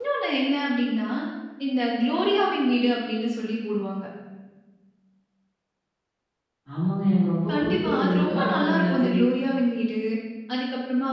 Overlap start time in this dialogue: 7.5 s

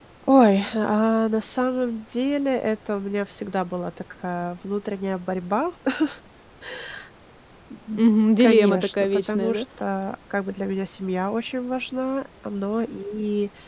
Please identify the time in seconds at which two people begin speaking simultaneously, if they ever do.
8.4 s

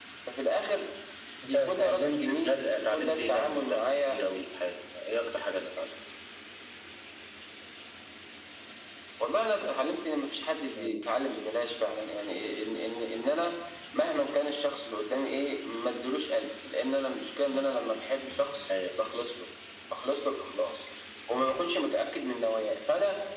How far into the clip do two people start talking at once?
1.5 s

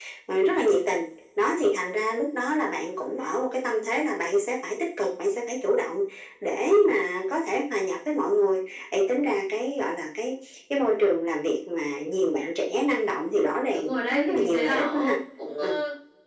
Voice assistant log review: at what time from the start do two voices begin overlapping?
13.7 s

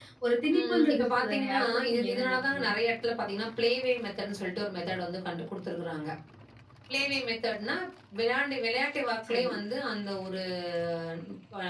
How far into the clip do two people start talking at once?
0.6 s

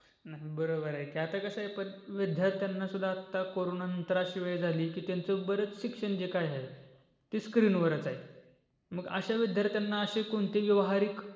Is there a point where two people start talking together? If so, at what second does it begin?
none

